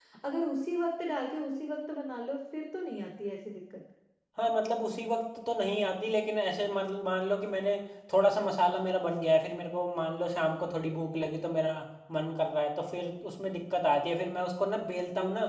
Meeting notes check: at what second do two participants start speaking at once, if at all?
none

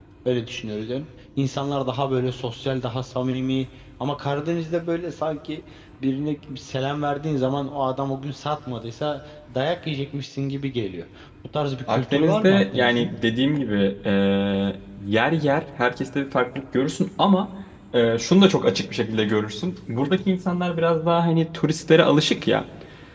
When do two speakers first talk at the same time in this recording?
11.9 s

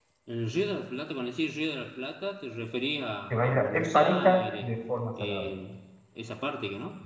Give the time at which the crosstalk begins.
3.3 s

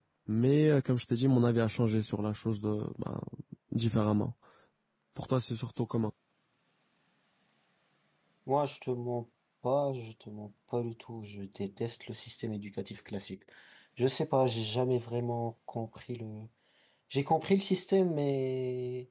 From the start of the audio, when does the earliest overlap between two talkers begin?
none

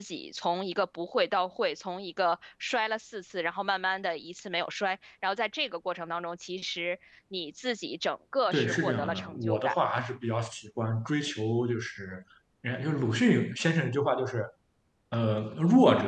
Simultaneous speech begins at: 8.5 s

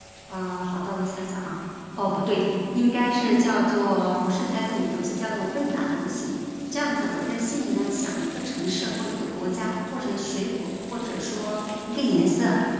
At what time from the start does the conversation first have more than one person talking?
none

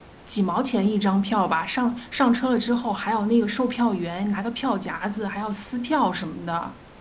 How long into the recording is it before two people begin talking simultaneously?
none

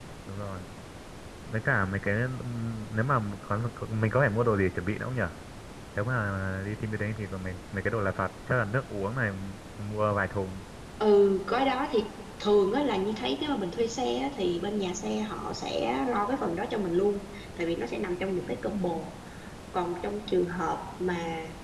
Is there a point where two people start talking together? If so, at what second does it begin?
none

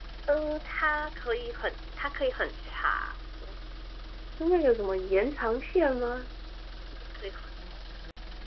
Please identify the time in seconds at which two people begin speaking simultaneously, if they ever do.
none

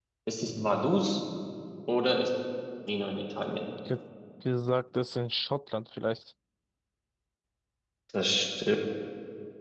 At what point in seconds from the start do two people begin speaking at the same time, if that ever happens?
none

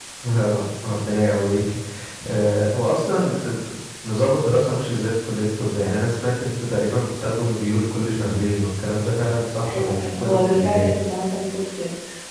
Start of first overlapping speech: 9.7 s

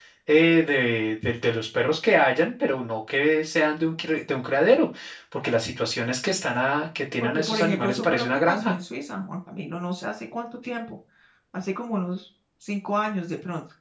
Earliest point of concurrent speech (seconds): 7.2 s

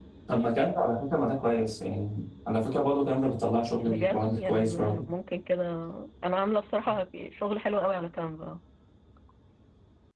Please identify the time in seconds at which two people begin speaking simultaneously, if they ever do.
3.8 s

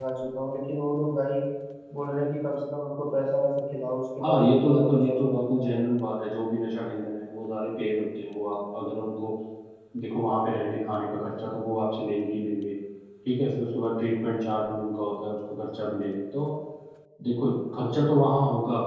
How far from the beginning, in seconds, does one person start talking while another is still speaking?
4.2 s

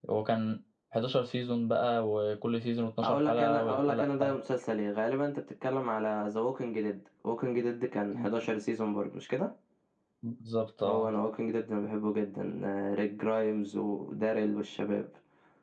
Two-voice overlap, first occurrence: 3.0 s

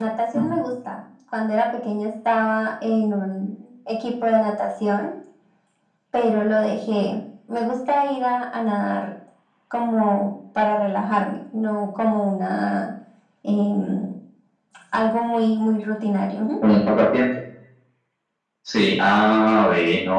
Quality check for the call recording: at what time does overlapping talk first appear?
none

